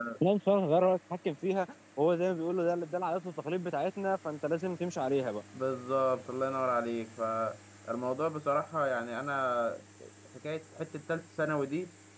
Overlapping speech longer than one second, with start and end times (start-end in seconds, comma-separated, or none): none